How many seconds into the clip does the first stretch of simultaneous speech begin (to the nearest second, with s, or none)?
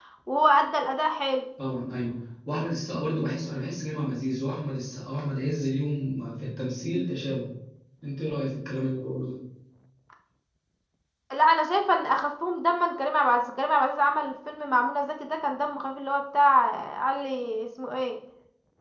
none